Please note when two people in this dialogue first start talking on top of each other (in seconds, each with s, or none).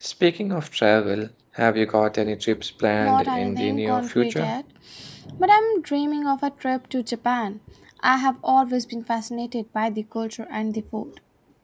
3.0 s